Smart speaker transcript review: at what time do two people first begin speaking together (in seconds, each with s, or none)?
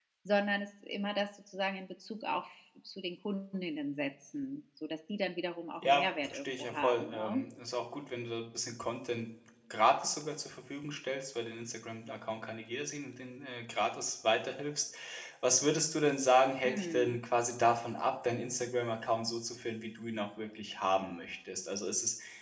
5.8 s